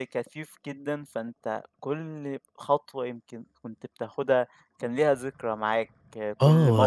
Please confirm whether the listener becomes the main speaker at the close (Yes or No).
Yes